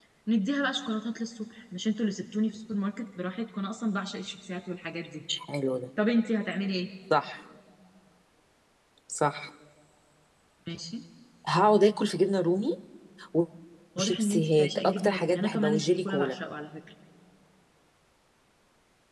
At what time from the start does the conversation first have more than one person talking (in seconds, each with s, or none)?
14.0 s